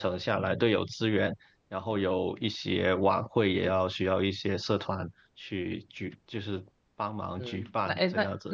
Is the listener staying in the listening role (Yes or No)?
No